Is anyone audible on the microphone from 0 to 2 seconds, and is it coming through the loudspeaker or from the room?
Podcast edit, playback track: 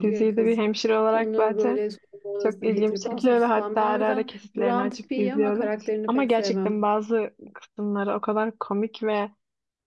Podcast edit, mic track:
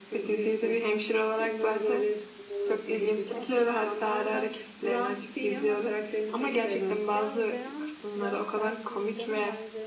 echo only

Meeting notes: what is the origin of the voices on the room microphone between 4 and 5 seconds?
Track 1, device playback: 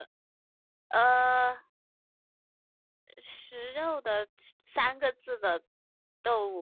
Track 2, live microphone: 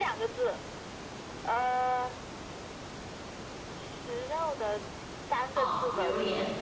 echo only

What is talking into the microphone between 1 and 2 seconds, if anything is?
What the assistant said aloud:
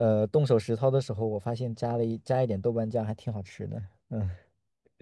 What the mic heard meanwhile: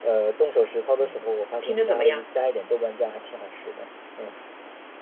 both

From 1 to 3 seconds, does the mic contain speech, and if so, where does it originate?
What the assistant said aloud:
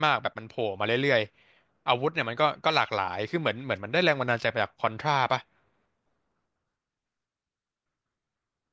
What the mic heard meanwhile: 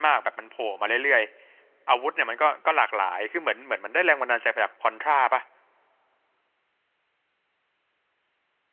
echo only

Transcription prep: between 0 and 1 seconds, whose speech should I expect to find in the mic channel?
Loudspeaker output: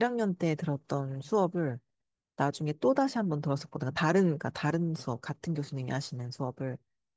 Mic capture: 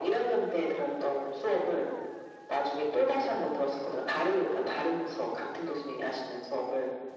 echo only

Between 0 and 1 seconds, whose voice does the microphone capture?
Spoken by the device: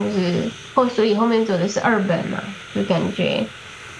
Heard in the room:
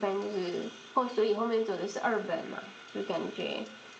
echo only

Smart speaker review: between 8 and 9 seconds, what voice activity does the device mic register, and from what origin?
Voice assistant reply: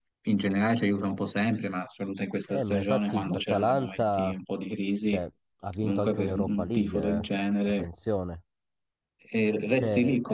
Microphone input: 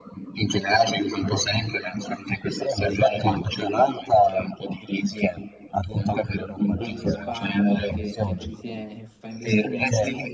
both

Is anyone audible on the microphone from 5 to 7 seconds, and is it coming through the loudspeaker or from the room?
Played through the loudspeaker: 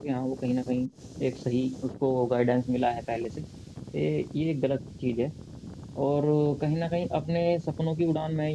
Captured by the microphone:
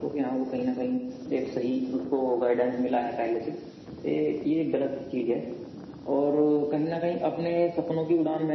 echo only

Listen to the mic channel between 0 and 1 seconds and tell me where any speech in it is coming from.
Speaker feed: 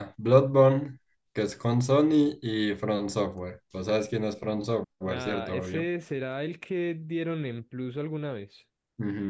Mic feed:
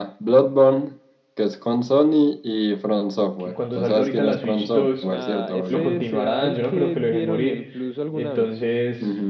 echo only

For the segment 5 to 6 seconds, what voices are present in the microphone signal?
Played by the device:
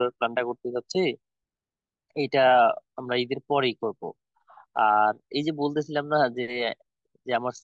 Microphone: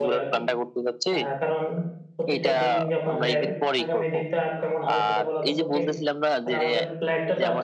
both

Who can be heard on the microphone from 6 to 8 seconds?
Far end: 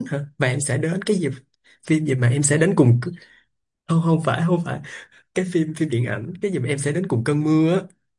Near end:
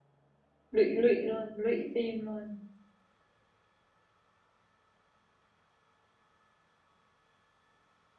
neither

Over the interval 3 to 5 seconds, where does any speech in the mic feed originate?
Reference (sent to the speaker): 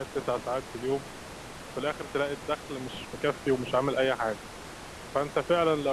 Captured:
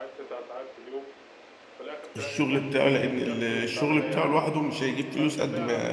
both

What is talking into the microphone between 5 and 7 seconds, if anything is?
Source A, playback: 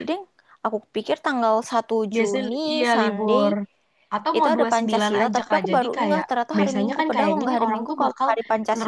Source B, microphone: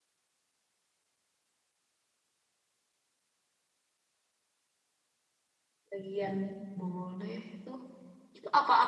user only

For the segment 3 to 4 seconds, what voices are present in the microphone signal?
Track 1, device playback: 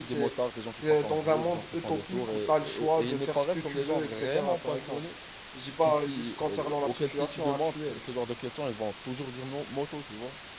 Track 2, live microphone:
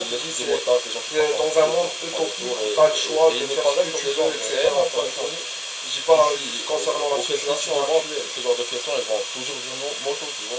echo only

